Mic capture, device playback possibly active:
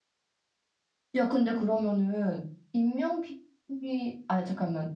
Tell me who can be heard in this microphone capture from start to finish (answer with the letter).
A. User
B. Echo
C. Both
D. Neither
A